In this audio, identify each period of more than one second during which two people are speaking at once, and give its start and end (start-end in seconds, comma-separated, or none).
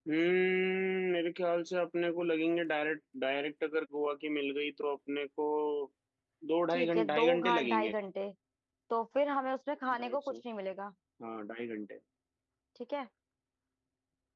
6.7-7.9